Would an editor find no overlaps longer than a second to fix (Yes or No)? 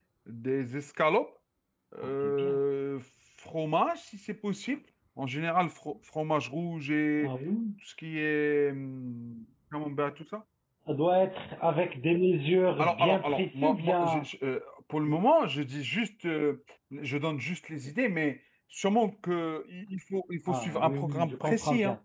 No